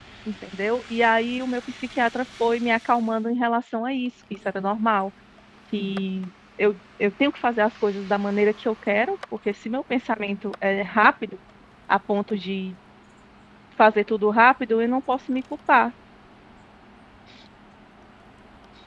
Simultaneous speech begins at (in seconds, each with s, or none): none